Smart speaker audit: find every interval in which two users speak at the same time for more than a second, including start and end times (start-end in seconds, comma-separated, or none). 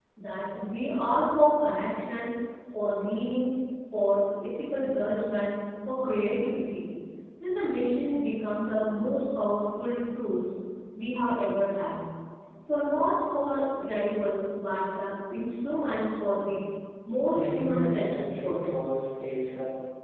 17.4-18.7